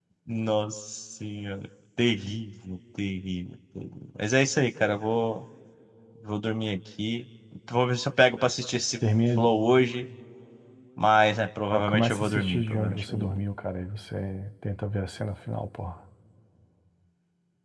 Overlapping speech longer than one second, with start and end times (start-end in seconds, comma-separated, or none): 11.7-13.4